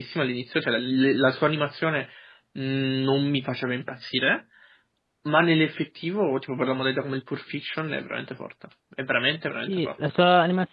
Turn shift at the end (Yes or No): Yes